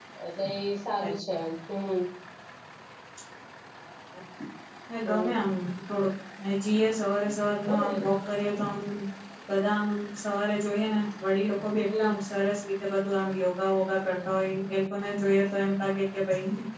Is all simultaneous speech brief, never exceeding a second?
Yes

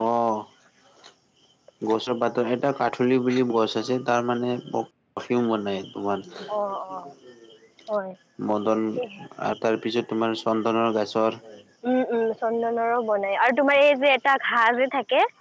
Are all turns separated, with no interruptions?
Yes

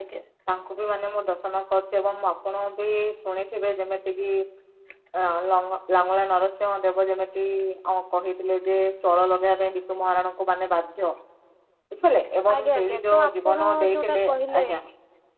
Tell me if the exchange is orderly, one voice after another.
No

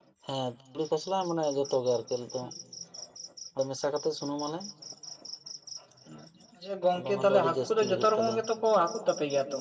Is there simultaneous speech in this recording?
Yes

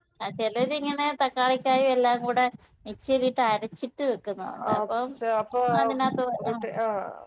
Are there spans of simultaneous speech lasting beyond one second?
No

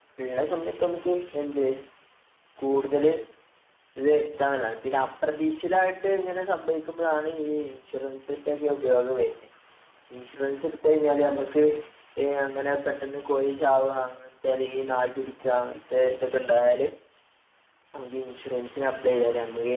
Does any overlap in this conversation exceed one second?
No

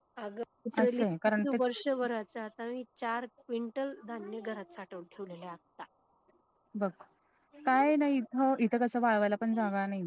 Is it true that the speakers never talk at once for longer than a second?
Yes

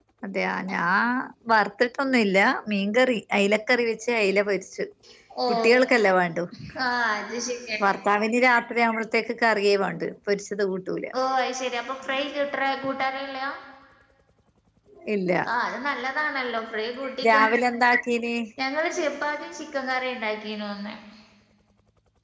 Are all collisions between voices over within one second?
Yes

